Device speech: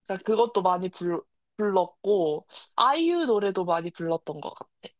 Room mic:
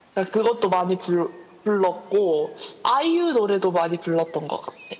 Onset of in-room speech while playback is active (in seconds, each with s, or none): none